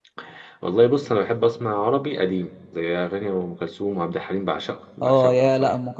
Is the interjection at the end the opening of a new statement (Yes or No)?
Yes